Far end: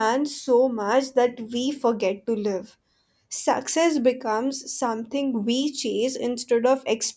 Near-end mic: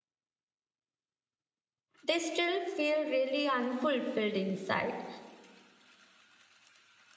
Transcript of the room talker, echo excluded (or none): they still feel really unfulfilled inside.